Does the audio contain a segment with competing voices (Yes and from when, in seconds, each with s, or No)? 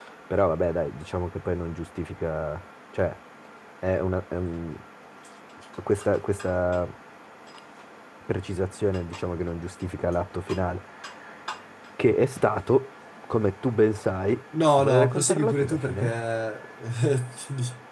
Yes, from 14.5 s